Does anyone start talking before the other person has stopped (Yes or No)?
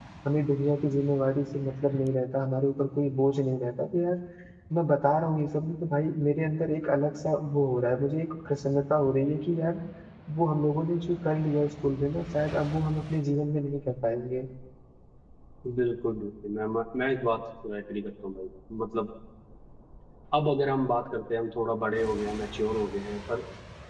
No